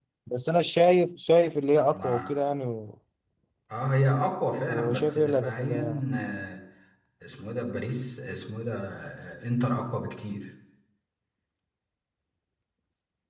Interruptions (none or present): present